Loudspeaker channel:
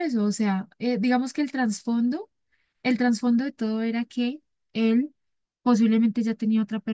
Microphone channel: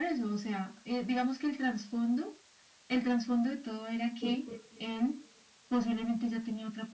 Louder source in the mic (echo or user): echo